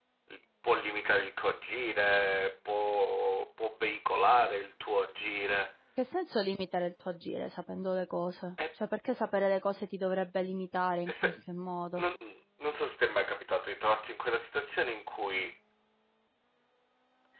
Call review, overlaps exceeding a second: none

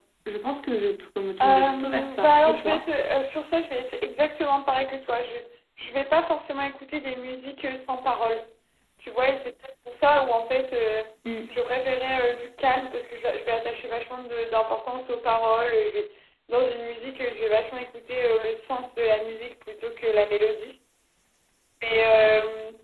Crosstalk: present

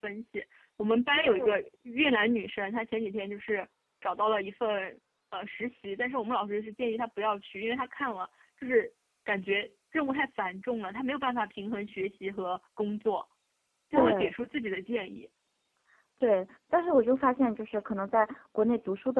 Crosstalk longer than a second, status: none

